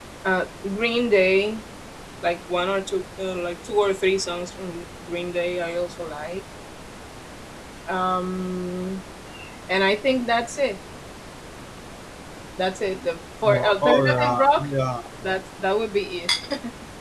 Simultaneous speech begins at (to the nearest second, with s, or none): 13 s